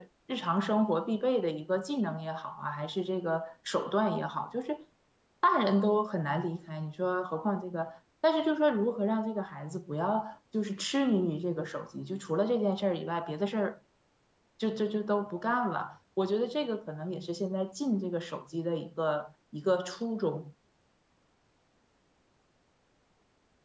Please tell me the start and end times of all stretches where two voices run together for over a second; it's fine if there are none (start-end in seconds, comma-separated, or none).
none